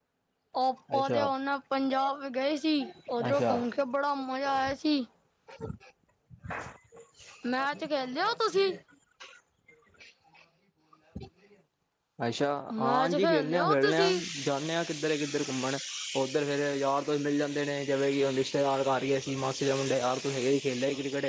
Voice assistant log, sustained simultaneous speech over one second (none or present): present